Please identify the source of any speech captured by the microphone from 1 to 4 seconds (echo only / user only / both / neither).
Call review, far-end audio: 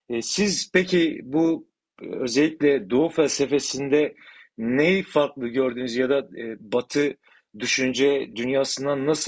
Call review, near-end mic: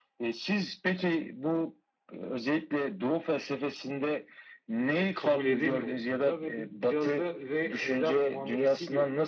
echo only